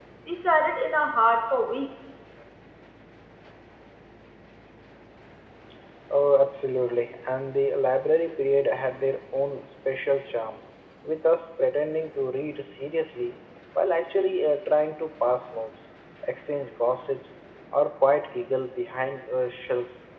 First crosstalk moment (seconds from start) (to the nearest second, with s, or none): none